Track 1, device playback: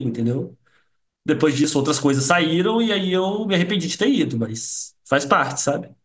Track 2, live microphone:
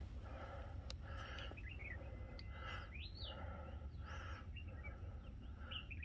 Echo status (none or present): none